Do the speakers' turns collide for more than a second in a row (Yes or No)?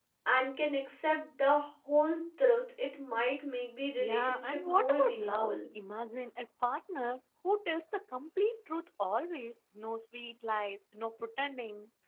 Yes